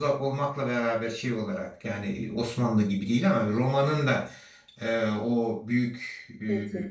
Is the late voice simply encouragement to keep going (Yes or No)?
Yes